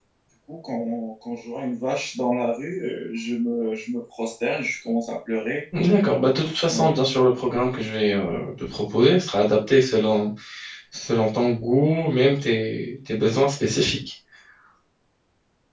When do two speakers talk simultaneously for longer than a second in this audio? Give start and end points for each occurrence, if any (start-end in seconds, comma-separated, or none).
none